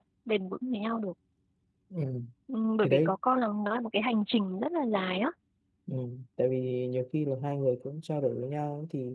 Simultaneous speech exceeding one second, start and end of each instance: none

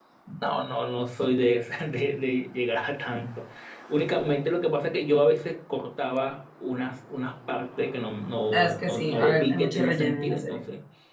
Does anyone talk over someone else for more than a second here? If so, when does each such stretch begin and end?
8.5-10.6

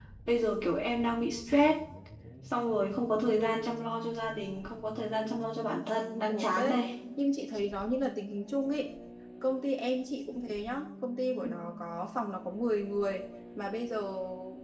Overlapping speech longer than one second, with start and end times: none

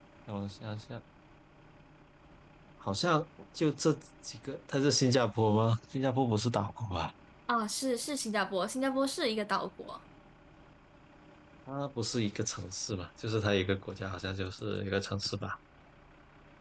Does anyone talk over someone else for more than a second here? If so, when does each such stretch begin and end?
none

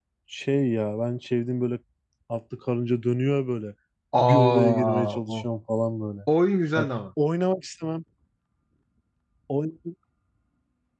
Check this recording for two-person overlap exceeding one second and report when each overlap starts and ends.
4.2-5.5

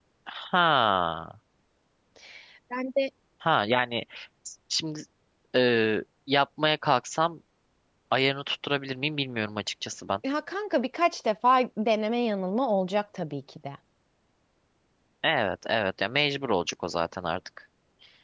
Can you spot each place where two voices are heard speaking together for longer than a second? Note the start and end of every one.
none

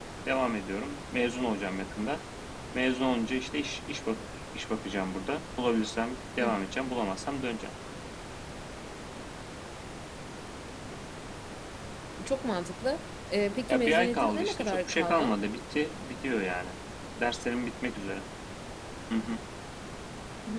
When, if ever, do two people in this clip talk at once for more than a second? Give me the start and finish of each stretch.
13.7-15.3

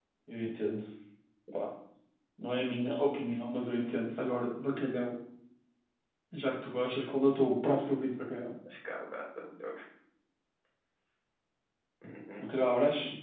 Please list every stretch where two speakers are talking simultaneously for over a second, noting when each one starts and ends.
none

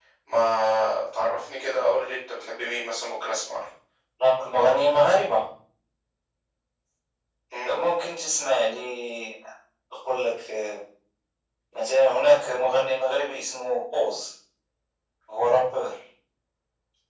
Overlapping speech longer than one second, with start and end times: none

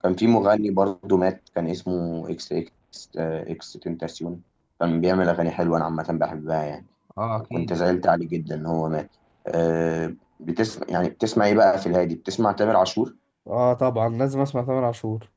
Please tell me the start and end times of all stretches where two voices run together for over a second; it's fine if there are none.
none

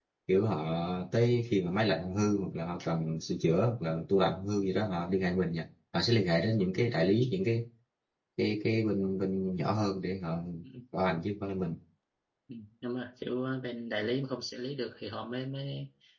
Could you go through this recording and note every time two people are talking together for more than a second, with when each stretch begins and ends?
none

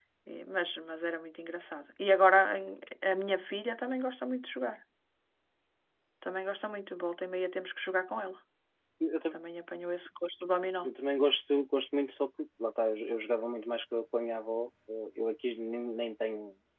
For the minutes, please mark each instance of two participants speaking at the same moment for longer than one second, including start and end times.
none

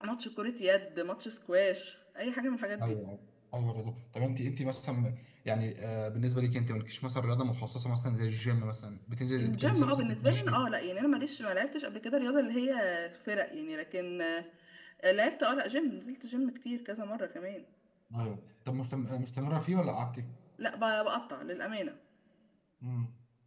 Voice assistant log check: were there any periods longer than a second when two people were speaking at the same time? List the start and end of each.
9.4-10.6

